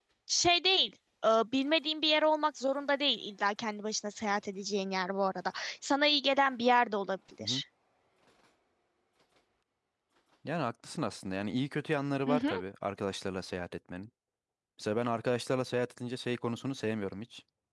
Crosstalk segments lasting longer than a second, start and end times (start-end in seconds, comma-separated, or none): none